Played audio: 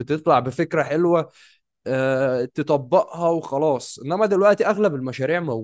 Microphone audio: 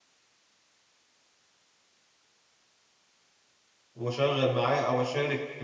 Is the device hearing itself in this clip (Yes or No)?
No